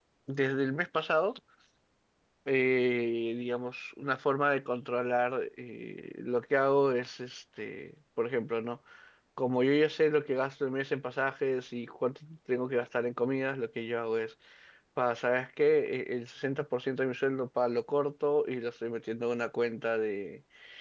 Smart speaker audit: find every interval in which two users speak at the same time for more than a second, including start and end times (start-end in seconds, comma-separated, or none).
none